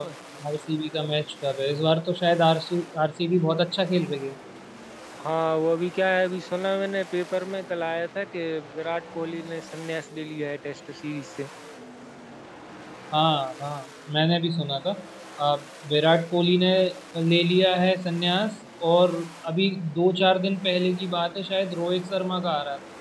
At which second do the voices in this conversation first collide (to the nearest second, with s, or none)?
none